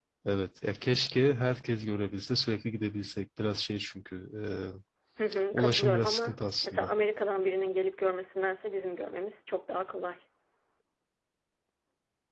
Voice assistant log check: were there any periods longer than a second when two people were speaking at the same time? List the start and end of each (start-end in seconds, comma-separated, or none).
5.5-6.9